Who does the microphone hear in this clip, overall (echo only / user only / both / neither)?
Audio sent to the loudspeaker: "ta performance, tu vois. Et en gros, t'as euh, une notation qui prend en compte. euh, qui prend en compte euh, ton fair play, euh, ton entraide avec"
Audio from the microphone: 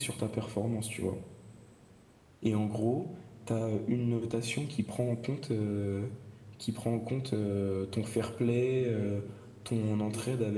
both